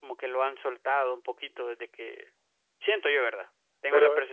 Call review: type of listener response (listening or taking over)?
listening